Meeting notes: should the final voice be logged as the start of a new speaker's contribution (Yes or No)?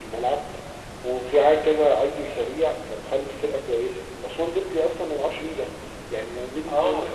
No